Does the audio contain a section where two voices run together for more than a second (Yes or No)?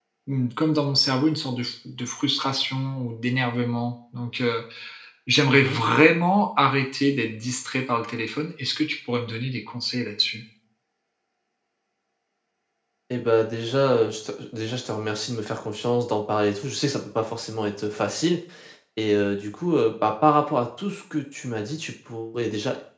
No